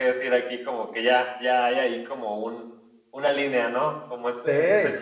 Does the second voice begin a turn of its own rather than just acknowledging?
No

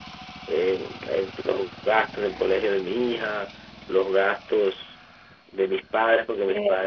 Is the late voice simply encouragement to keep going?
Yes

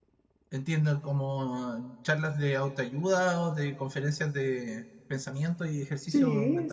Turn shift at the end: Yes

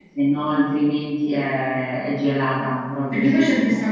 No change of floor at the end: No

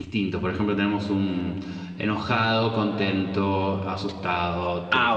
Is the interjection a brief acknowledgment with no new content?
No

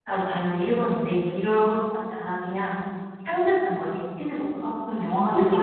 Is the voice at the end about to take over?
Yes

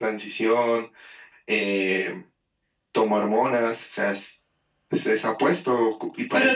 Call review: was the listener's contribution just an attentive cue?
Yes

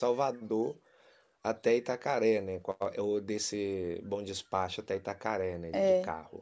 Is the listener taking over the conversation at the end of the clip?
Yes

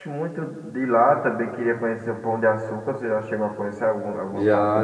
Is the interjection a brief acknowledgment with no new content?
No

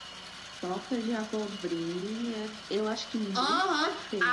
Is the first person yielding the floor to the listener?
Yes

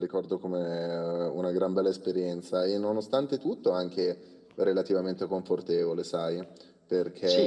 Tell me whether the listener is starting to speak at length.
No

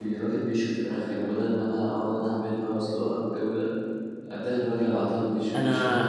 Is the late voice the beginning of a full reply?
Yes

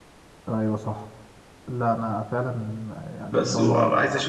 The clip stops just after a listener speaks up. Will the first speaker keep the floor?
No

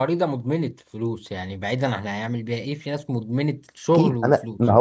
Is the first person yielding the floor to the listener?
Yes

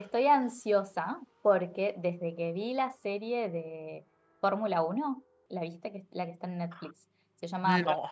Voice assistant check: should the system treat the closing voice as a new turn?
No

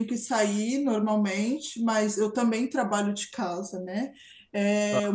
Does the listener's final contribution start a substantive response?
No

